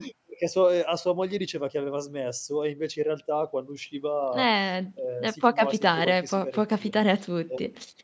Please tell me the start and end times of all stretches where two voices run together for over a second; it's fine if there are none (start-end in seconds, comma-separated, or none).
5.5-7.0